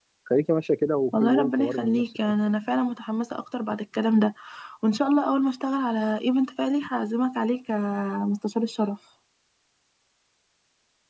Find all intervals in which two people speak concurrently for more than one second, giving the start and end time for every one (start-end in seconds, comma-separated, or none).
1.1-2.3